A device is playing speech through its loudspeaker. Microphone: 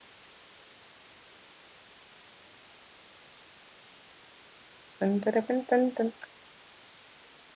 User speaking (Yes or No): Yes